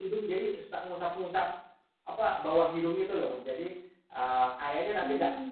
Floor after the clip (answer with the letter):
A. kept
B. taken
A